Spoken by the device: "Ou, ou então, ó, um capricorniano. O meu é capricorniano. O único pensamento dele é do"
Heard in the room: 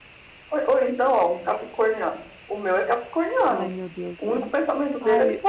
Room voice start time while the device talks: 3 s

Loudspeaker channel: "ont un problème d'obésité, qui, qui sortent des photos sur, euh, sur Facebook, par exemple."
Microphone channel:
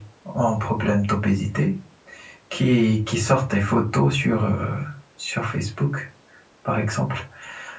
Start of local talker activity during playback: none

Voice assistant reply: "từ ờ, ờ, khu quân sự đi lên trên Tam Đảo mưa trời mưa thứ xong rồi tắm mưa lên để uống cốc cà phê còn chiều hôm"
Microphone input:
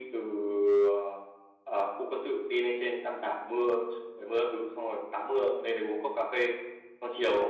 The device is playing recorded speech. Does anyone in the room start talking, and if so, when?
none

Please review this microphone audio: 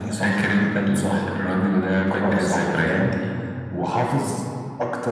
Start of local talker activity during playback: none

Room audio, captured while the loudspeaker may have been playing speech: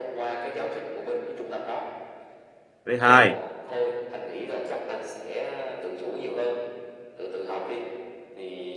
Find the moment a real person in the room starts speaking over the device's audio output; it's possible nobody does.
3 s

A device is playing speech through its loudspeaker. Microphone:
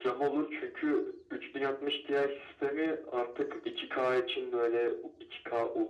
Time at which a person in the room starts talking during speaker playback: none

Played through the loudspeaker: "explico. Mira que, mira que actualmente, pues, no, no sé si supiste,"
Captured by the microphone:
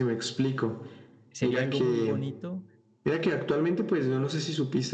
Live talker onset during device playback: 1 s

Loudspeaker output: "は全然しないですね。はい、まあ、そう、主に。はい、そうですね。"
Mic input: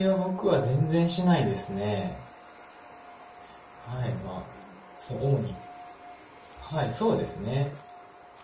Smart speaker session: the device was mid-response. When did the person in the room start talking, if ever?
none

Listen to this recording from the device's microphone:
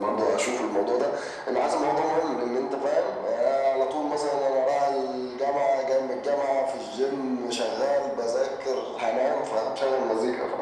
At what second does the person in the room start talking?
none

